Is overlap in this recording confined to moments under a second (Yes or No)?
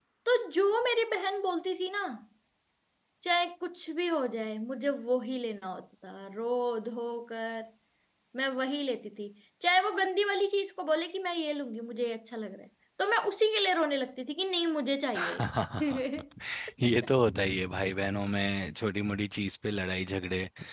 Yes